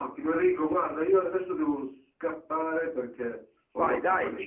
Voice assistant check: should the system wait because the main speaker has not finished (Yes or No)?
No